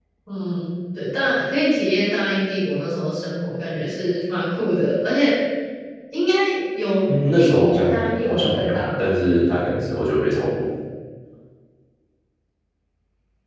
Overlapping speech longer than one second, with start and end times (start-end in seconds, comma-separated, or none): 7.4-9.0